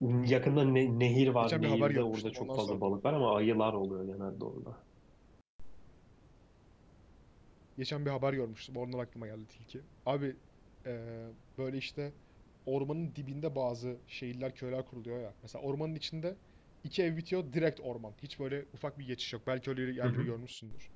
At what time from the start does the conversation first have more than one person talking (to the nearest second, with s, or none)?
1 s